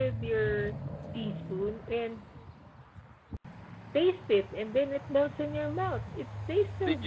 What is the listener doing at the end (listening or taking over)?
taking over